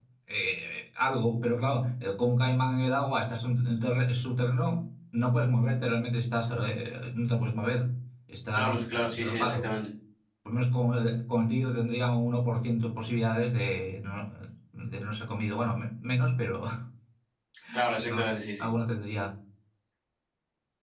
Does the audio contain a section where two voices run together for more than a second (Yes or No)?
Yes